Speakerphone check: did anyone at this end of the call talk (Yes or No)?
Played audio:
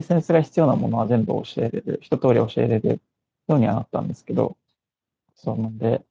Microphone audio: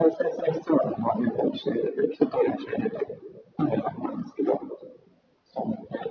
No